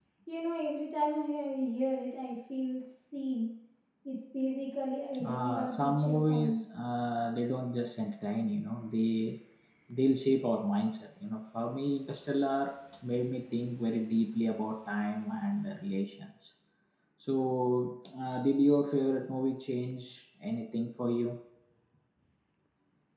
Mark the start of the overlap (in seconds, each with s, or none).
5.1 s